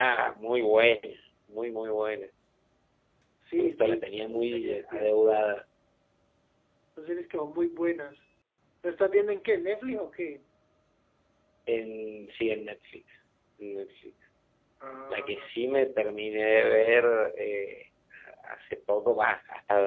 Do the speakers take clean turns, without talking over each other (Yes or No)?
No